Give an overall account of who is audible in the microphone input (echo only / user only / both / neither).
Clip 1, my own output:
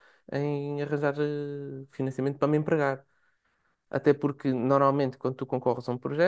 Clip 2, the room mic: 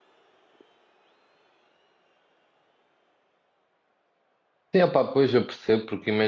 user only